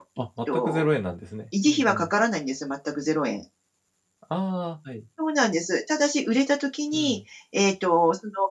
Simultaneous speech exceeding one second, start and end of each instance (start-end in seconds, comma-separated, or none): none